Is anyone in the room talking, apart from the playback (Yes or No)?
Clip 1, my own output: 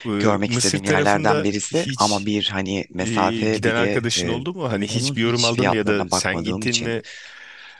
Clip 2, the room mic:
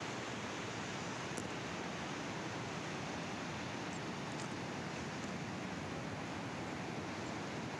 No